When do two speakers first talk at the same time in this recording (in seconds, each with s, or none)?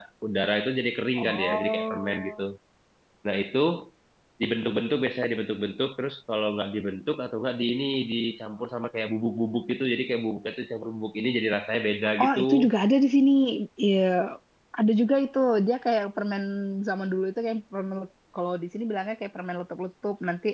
1.2 s